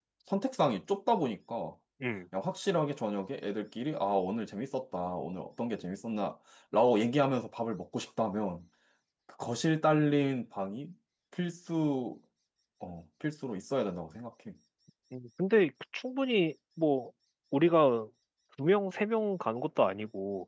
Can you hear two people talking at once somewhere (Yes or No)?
No